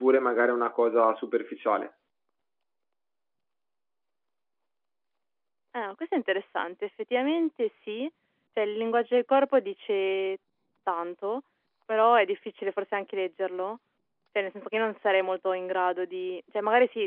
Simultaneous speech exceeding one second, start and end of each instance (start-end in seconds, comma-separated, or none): none